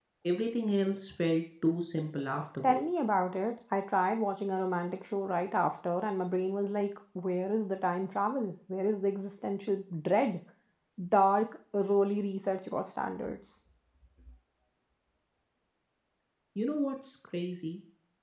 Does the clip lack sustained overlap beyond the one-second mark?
Yes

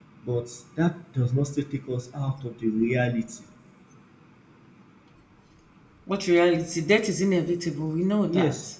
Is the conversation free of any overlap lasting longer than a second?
Yes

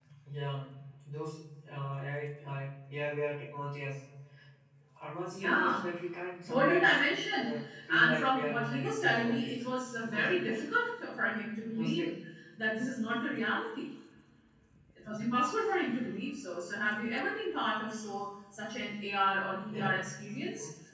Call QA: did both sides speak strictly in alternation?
No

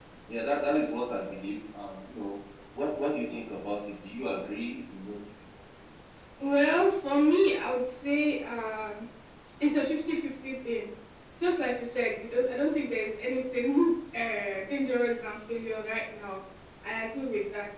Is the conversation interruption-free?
Yes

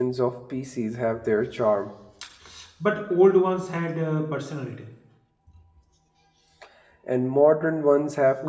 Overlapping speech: No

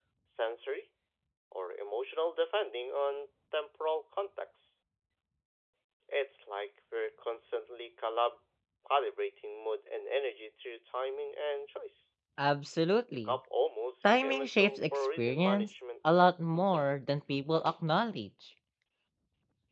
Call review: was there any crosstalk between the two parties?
Yes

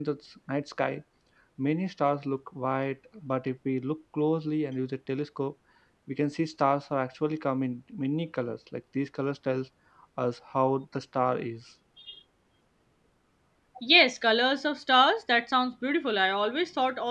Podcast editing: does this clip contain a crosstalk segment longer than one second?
No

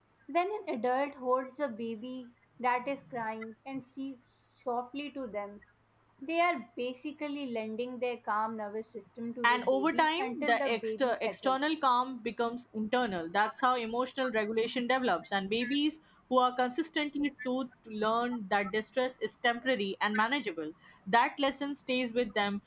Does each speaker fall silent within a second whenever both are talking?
No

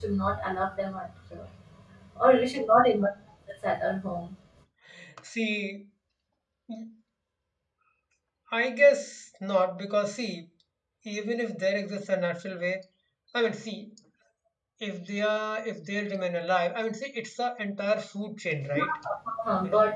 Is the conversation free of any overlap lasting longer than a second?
Yes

